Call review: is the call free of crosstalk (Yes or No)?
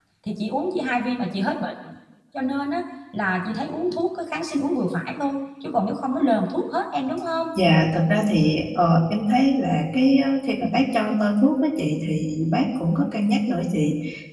Yes